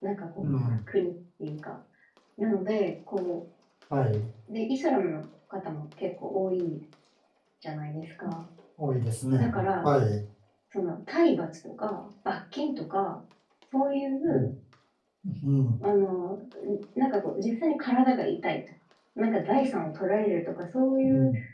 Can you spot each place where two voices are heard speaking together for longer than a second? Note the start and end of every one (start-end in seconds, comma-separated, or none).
none